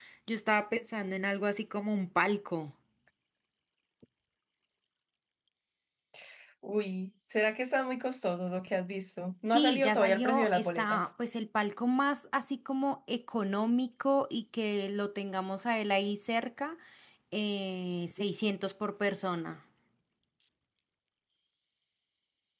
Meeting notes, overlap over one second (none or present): present